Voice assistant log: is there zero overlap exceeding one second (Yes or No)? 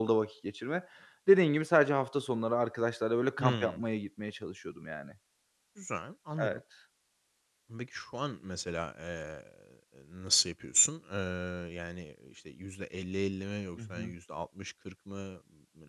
Yes